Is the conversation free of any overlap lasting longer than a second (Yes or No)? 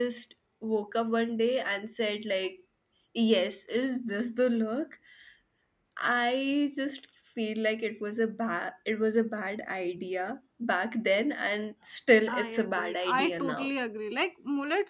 No